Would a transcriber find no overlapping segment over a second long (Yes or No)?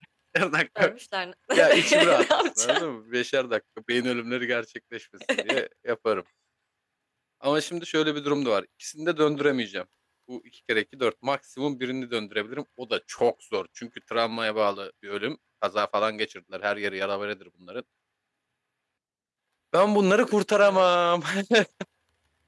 No